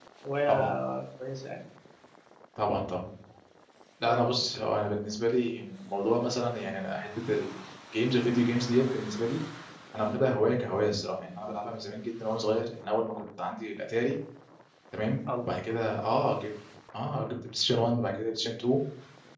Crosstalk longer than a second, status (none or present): none